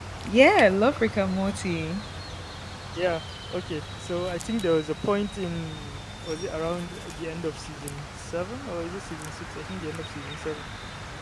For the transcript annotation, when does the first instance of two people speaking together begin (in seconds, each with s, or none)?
none